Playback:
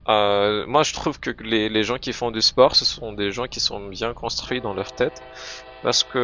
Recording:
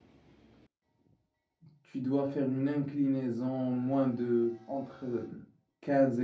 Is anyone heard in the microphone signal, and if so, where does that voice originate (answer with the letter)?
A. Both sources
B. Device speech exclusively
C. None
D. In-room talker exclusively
D